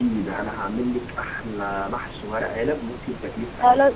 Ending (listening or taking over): taking over